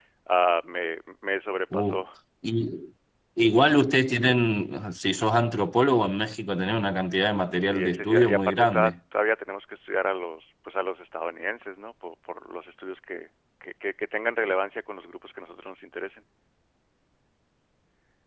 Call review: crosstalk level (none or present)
present